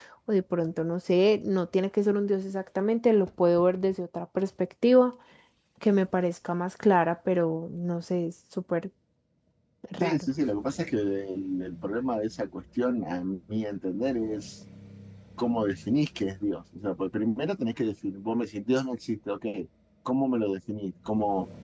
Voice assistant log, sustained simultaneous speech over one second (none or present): none